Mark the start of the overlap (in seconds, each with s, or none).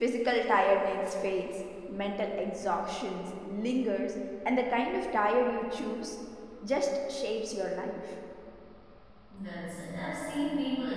none